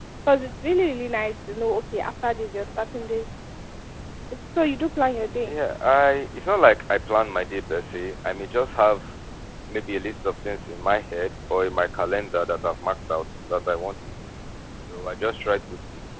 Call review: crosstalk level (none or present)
none